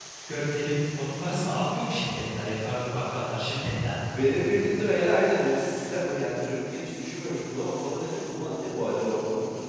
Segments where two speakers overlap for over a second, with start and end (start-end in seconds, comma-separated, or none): none